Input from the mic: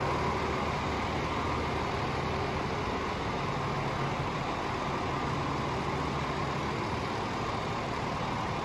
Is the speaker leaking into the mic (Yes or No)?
No